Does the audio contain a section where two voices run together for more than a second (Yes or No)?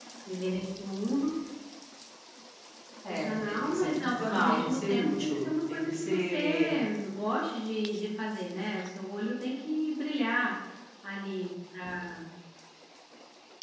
Yes